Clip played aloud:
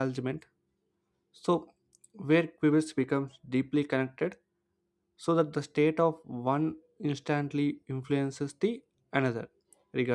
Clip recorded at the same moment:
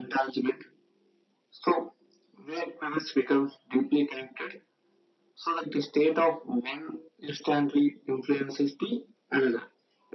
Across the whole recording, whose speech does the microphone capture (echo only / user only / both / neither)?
echo only